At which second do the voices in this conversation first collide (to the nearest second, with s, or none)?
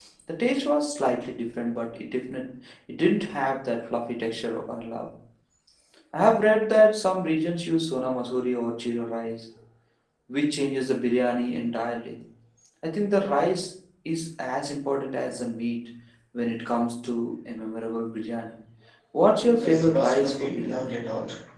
19 s